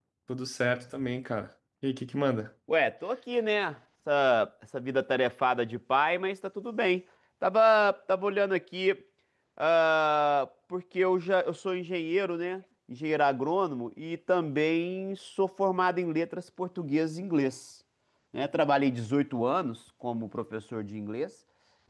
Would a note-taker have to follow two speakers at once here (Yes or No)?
No